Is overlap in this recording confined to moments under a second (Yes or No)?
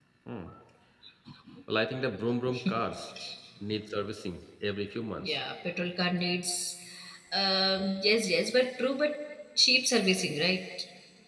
Yes